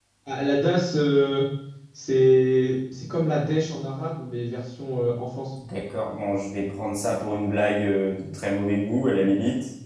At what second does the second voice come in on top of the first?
none

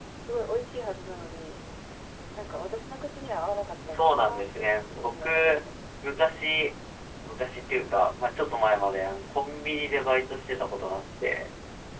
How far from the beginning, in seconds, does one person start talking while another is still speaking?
4 s

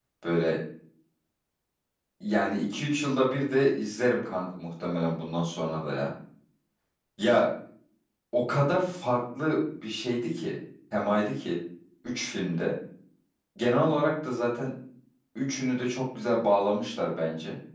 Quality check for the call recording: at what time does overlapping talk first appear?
none

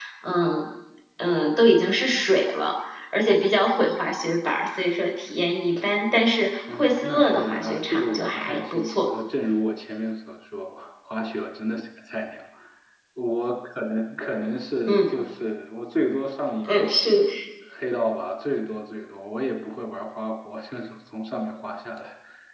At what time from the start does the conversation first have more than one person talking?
7 s

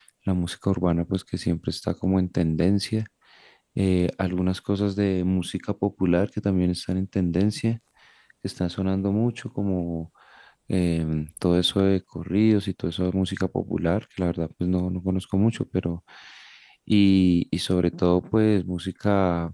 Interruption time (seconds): none

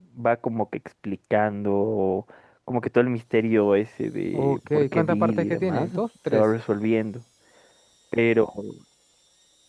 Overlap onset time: 4 s

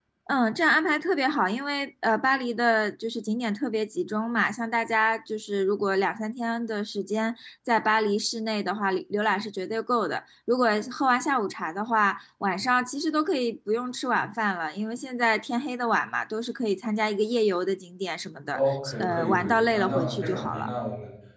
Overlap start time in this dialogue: 19 s

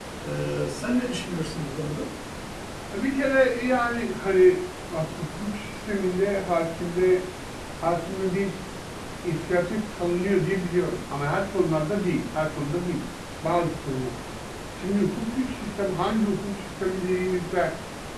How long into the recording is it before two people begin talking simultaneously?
none

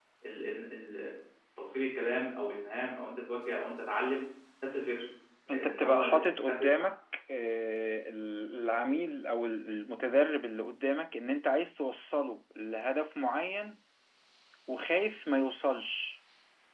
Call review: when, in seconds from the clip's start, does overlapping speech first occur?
6 s

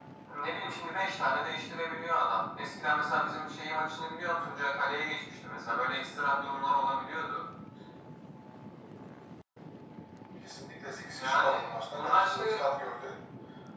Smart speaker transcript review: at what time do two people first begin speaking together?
11 s

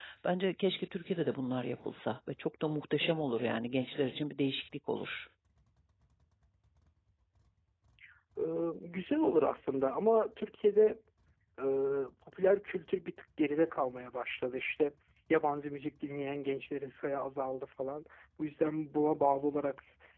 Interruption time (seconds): none

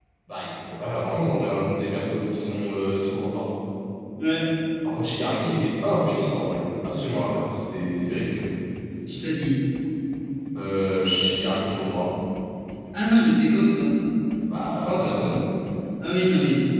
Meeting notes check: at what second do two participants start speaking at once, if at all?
none

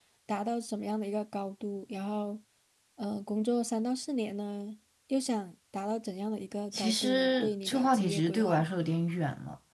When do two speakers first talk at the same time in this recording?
7 s

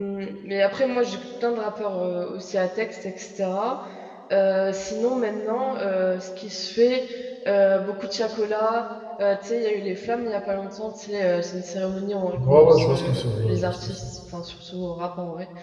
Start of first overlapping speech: 12 s

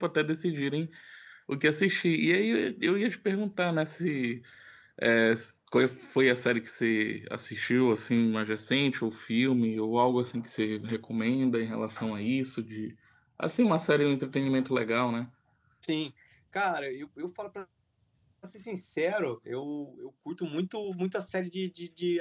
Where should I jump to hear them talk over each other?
none

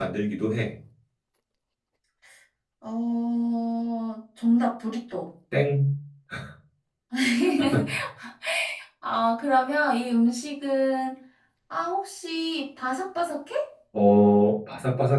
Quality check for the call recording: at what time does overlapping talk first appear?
none

